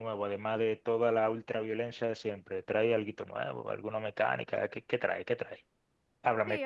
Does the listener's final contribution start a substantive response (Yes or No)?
Yes